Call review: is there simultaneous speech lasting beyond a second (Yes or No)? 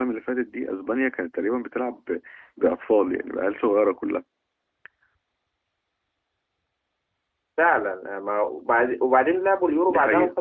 No